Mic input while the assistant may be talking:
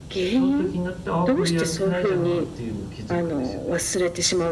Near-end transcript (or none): その時になって、ああ、これやってないじゃんっていうの気づくんですよね。